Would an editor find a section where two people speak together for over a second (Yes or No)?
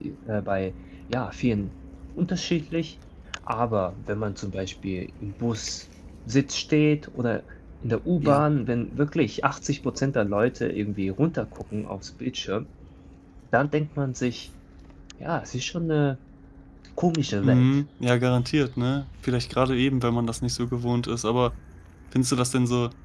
No